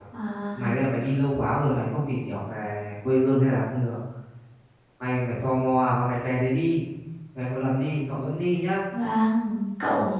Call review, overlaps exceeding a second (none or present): none